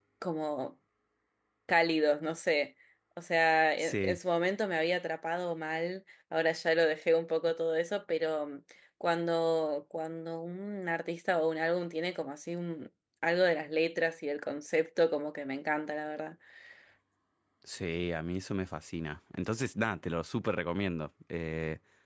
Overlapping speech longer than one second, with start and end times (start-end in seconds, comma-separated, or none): none